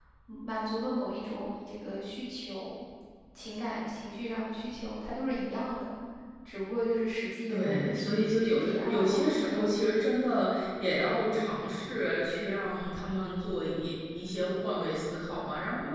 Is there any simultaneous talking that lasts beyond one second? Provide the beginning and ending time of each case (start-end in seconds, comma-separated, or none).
7.5-9.7